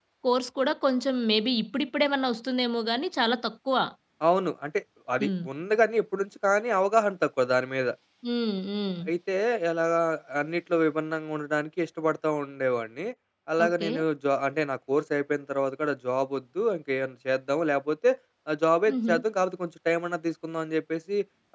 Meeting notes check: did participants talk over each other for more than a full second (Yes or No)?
No